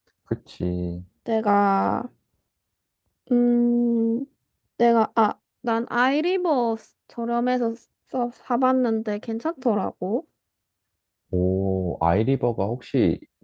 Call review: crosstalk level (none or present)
none